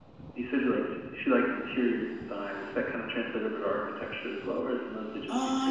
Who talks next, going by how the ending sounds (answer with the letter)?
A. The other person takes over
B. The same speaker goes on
A